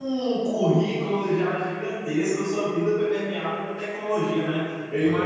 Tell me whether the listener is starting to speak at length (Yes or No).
No